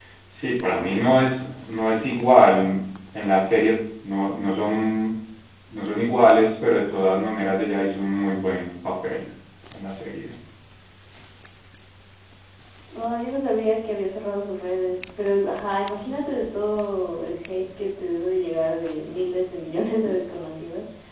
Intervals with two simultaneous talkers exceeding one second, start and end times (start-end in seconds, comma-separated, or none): none